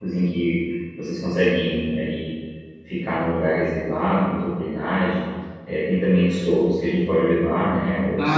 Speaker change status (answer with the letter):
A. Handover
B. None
A